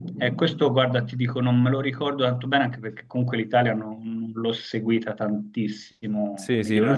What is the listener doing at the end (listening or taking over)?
taking over